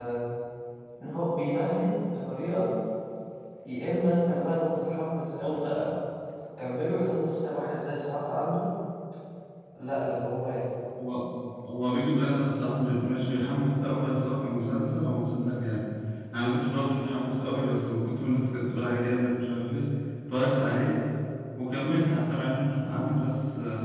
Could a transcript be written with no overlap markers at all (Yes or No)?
Yes